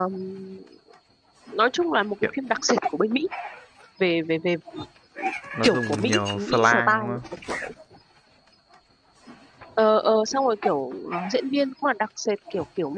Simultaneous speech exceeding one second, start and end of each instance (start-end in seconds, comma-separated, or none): 5.6-7.2